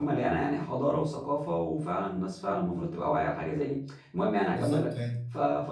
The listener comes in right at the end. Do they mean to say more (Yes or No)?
No